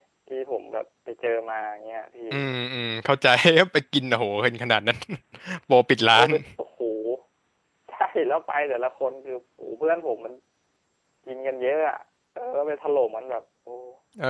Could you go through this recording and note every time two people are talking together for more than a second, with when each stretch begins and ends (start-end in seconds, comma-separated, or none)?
none